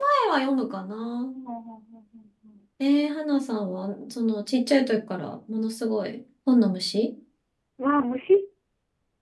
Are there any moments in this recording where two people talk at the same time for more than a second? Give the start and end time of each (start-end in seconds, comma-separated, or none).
none